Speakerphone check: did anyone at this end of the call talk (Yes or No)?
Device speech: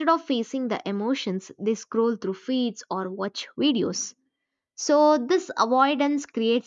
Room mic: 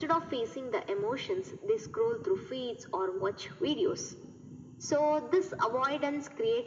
No